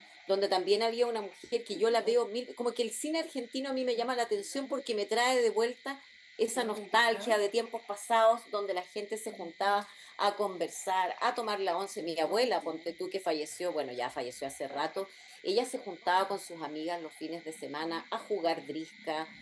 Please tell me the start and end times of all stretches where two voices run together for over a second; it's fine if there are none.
none

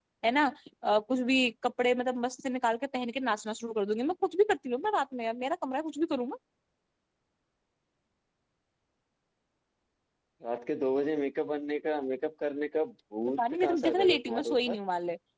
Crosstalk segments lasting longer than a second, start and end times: 13.4-14.8

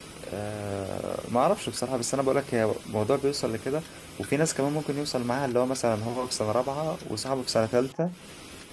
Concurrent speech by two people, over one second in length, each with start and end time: none

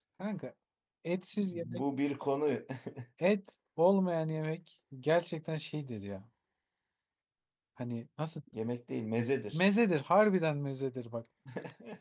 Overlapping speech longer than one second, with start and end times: none

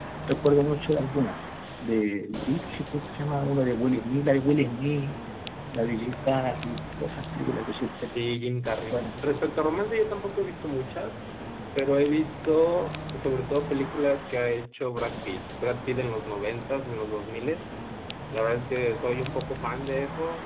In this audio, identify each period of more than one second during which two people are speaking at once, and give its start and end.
none

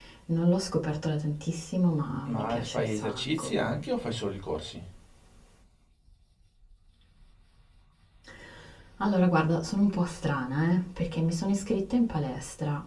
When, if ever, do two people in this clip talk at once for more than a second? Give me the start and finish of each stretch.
2.3-3.5

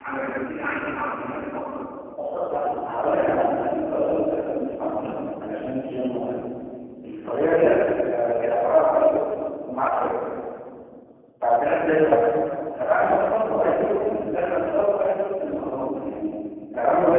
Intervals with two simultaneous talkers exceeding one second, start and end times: none

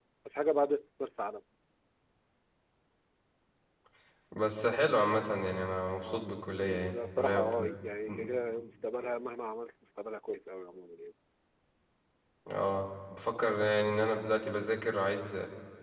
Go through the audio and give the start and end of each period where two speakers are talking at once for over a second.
6.0-7.5

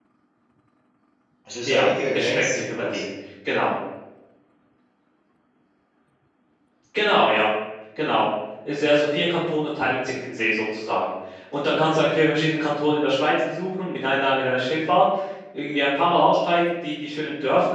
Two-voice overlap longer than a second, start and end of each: 1.6-3.1

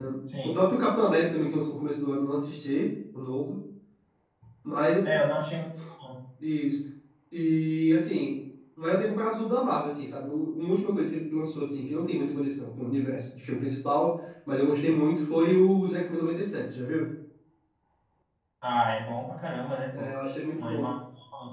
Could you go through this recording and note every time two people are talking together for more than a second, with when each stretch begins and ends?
none

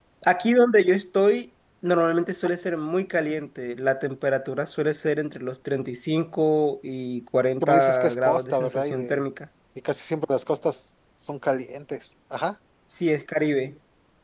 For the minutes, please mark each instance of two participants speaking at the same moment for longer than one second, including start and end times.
7.6-9.2

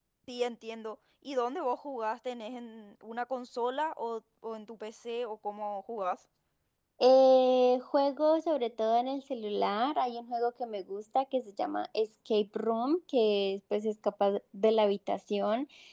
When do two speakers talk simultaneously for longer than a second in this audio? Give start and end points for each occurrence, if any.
none

